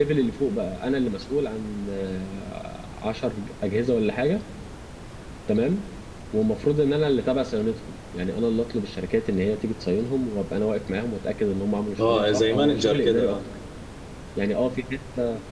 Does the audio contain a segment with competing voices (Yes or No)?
Yes